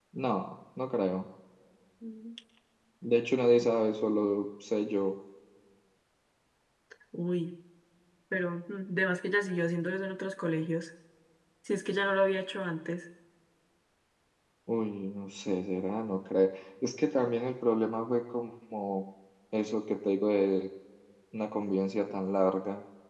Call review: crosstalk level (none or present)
none